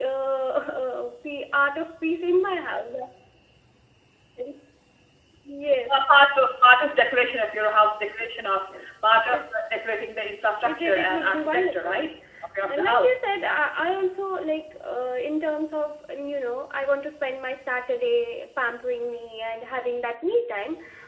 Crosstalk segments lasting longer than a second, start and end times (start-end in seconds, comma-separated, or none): 10.7-11.9